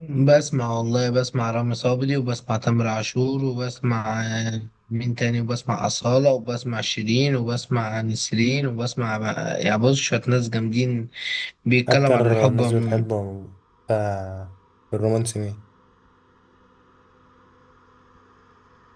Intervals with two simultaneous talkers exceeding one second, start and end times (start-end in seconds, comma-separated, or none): 11.9-13.1